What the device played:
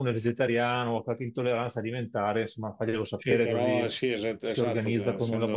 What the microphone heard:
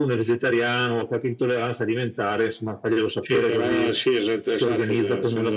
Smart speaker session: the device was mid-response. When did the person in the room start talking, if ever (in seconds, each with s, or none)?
none